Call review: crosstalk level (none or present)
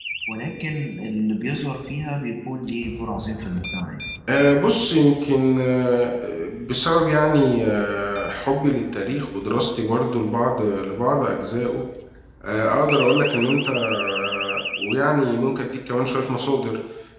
none